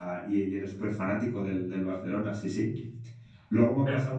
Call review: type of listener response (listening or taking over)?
listening